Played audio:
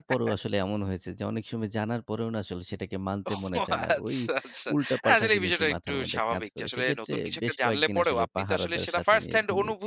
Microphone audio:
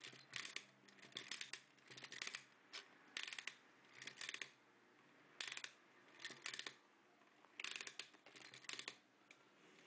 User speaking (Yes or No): No